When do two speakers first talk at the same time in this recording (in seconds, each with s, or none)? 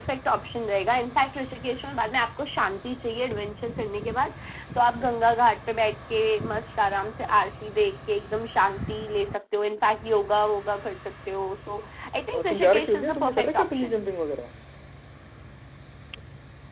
12.3 s